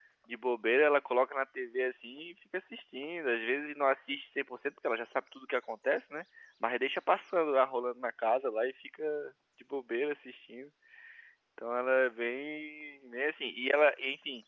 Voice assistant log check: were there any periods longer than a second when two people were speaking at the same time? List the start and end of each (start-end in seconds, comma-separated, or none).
none